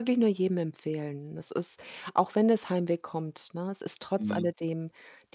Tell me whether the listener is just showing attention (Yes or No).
Yes